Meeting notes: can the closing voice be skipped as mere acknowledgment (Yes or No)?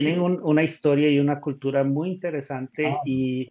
Yes